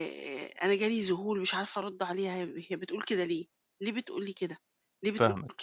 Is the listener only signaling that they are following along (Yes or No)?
Yes